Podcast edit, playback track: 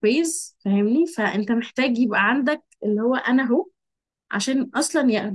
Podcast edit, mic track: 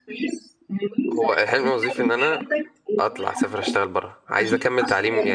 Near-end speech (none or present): present